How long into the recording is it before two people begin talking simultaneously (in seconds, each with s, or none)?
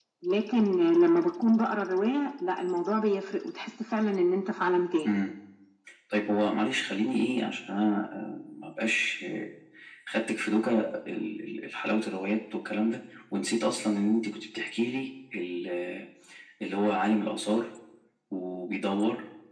none